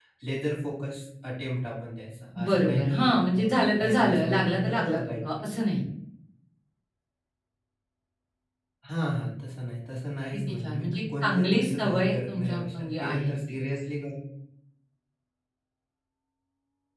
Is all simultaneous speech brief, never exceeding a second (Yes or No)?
No